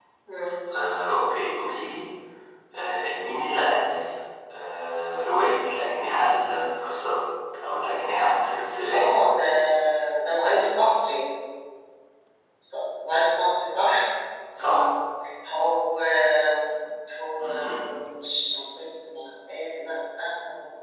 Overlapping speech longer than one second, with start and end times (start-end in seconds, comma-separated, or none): none